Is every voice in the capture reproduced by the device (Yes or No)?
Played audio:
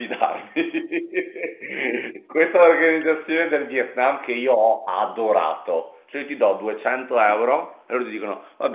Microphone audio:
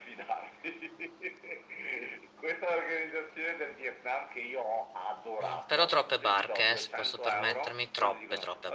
No